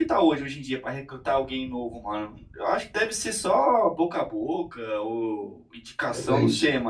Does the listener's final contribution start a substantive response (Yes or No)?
No